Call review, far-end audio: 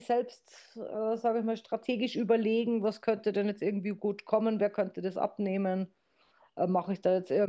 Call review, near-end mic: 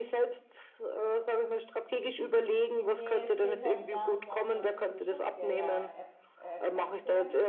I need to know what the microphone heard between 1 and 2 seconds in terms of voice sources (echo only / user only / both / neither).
echo only